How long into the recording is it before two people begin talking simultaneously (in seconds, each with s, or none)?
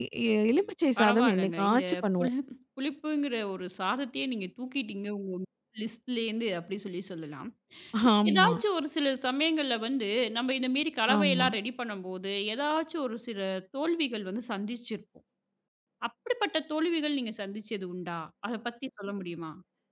1.0 s